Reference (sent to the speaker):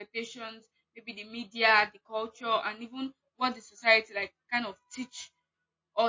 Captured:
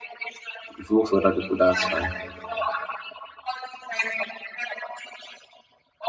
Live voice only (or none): If it works for other people, that's fine.